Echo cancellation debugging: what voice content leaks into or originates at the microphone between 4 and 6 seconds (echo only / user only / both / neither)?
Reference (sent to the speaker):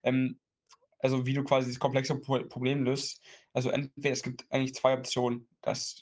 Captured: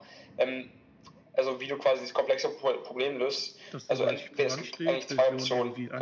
both